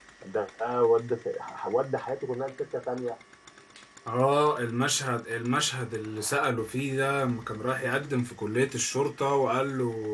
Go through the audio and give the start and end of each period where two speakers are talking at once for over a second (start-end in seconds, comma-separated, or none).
none